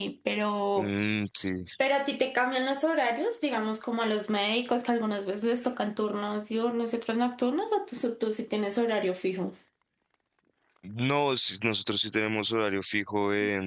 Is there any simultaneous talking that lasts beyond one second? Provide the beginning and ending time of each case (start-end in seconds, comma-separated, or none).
none